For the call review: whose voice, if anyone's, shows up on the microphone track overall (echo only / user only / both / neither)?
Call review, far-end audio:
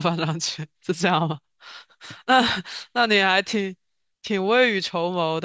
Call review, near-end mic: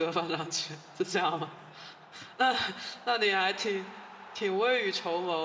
echo only